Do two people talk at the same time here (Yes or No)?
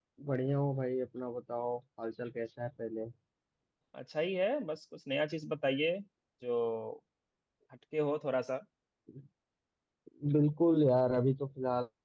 No